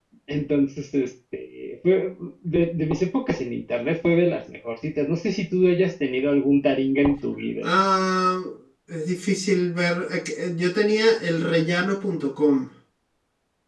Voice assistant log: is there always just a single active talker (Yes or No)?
Yes